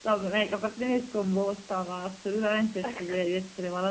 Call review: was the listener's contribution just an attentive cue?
Yes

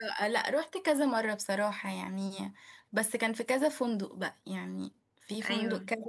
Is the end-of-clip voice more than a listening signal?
No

